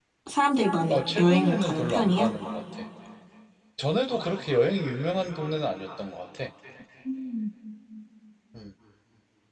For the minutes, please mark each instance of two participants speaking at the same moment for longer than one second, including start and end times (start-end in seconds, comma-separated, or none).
0.9-2.4